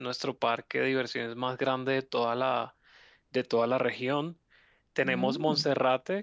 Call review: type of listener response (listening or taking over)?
listening